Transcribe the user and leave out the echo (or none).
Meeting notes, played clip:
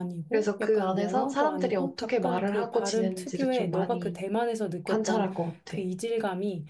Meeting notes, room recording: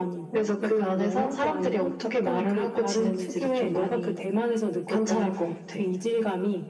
none